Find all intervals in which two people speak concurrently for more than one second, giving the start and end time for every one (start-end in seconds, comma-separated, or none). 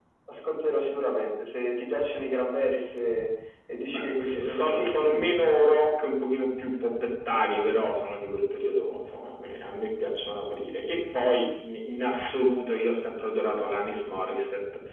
3.9-5.7